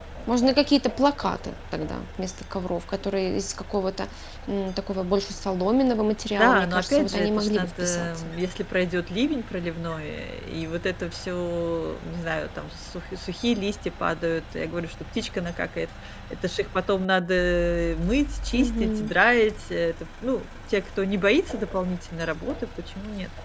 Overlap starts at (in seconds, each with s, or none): 6.4 s